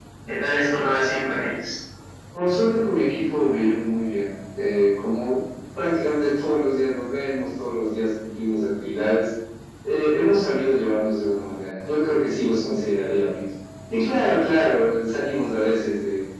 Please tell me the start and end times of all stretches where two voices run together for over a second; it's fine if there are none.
none

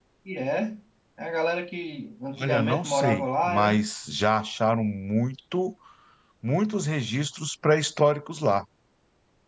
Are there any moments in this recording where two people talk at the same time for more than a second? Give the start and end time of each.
2.4-3.8

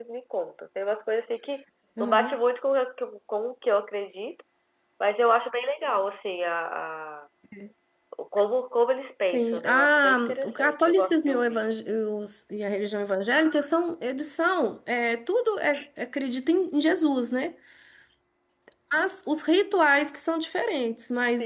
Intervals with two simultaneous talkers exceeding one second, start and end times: 9.2-11.6

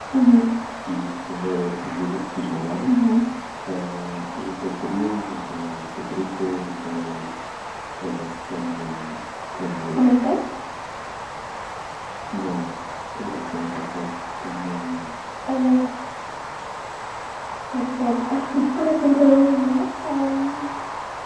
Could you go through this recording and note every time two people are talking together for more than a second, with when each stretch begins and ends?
none

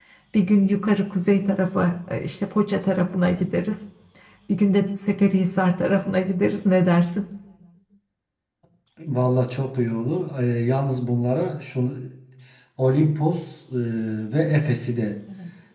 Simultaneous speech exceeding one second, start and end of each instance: none

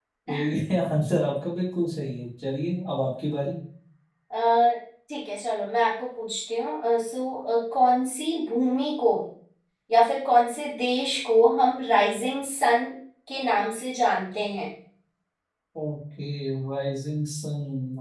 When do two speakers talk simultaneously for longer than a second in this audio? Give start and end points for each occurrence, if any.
none

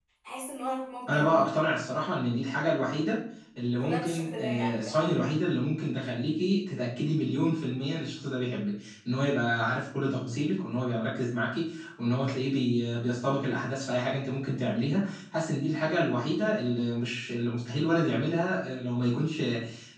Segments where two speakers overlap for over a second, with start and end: 3.8-5.1

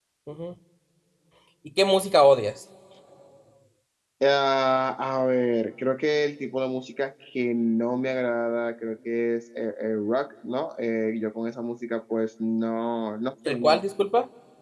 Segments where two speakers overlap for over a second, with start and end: none

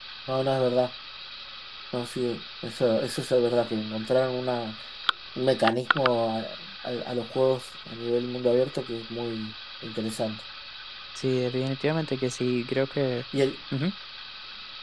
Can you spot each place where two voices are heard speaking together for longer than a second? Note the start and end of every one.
none

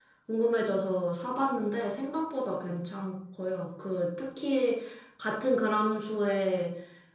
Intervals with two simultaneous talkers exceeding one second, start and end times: none

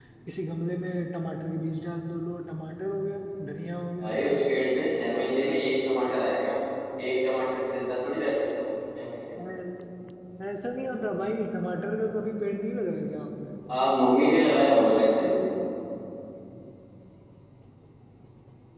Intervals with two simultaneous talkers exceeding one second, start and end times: none

